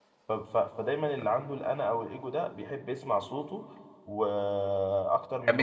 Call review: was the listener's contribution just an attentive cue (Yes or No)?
Yes